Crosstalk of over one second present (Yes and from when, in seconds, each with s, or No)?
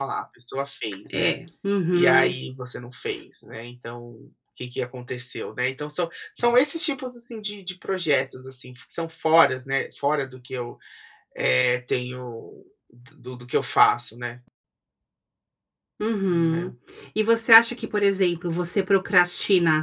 No